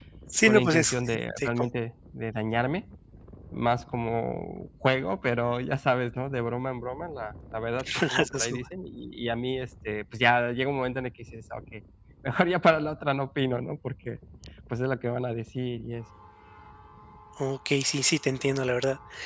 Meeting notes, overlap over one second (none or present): present